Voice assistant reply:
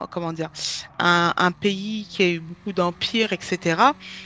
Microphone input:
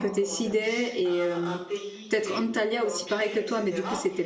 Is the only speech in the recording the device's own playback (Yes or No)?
No